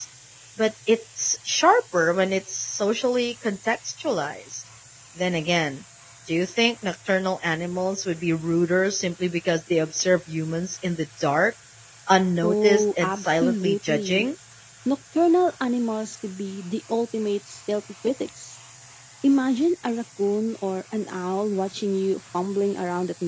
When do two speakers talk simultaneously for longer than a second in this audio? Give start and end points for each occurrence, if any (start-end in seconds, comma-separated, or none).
12.4-14.2